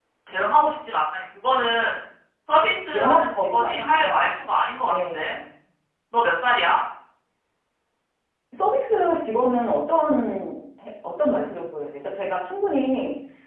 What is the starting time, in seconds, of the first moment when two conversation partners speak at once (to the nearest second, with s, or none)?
3 s